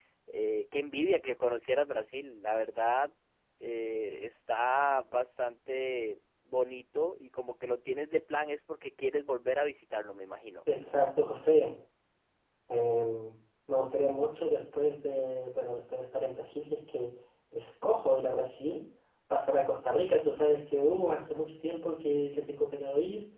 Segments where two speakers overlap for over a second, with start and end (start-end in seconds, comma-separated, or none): none